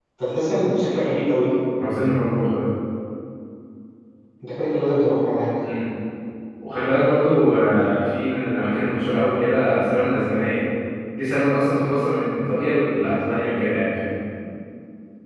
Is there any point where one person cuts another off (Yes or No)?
No